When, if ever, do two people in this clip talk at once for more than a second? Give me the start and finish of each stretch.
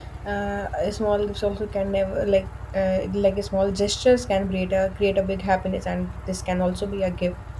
none

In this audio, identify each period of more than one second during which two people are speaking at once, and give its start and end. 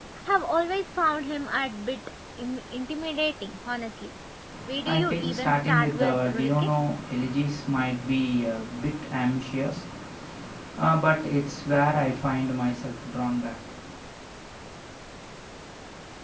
4.8-6.7

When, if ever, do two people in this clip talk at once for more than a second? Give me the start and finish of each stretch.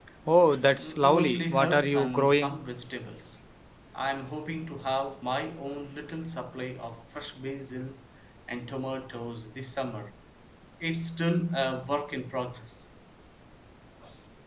0.8-2.6

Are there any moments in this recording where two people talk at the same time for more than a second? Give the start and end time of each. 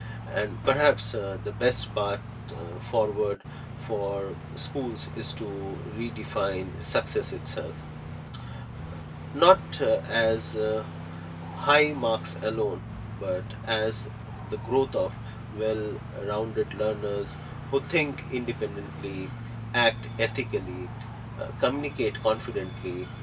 none

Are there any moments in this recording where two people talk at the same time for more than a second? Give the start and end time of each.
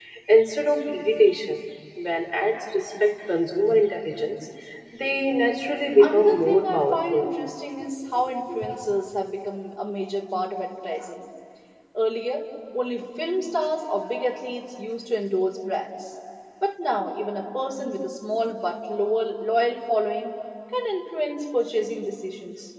6.0-7.3

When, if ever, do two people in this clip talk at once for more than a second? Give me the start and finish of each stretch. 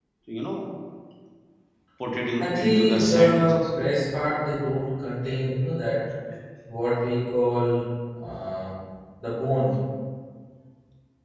2.4-3.7

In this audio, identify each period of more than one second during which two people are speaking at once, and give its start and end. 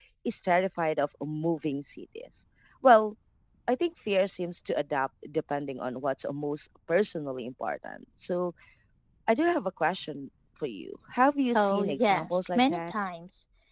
11.5-12.9

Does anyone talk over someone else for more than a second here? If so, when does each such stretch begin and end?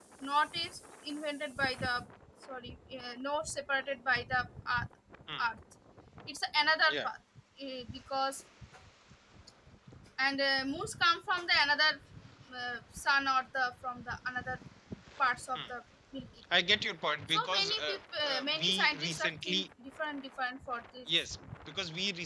17.3-19.6

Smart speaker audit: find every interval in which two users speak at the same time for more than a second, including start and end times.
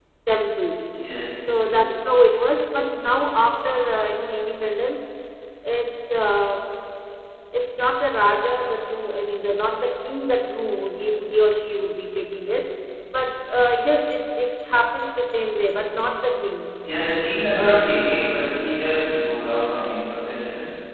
none

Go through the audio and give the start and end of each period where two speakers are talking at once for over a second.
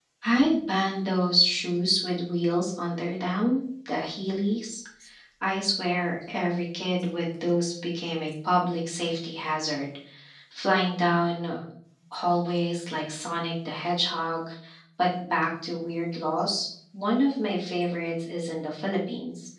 none

